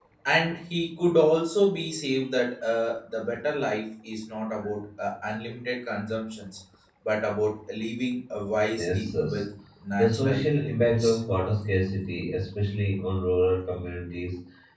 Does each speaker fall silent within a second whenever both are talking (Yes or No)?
No